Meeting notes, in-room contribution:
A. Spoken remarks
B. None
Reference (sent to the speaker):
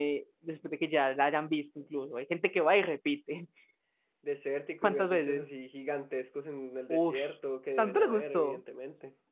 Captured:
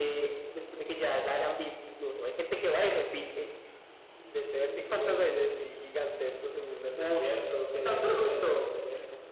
B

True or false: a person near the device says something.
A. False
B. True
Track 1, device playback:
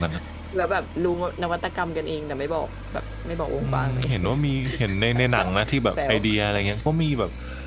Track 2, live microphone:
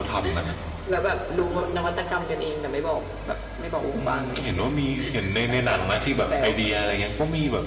A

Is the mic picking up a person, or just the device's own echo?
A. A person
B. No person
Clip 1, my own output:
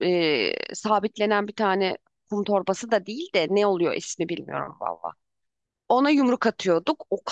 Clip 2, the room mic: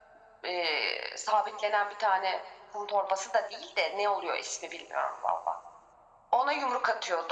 B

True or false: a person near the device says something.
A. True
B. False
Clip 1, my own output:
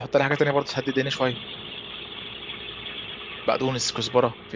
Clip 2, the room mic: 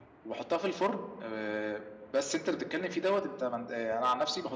A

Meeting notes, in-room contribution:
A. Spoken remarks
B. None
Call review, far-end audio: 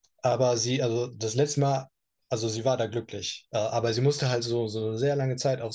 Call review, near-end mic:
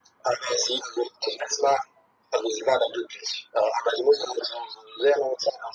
B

